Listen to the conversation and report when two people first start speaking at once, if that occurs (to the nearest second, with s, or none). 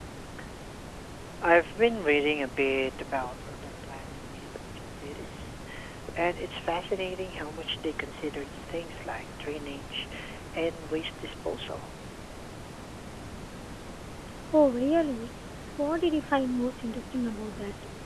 none